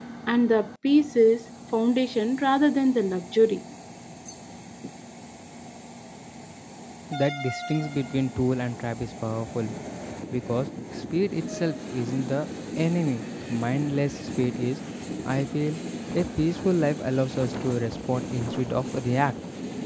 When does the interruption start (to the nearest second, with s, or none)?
none